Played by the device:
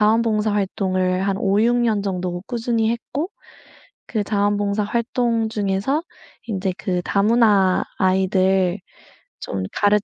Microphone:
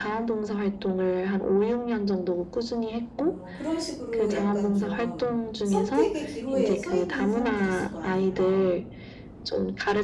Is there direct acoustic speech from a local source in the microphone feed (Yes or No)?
Yes